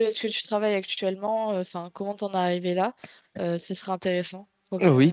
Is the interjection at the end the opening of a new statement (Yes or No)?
Yes